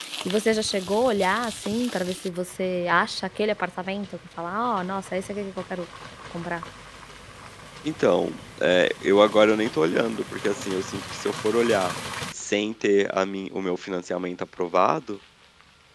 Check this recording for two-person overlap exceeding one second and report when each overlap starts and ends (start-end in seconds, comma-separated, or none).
none